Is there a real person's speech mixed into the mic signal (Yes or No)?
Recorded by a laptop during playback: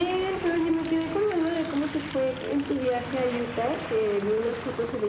No